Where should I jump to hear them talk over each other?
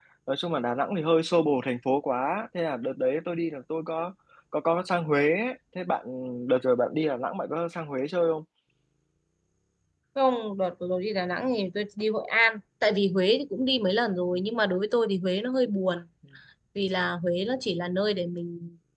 none

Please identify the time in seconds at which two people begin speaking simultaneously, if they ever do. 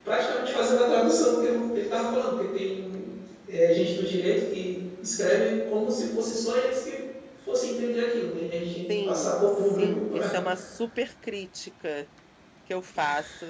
8.9 s

